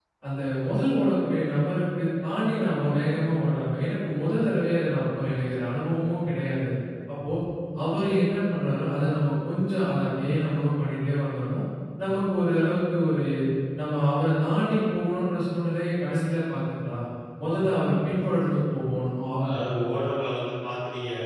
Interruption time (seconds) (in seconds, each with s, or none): none